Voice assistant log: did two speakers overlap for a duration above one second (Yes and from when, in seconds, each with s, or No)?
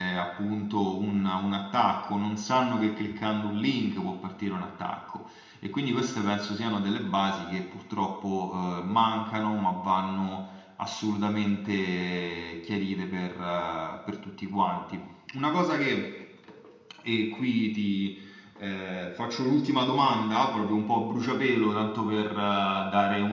No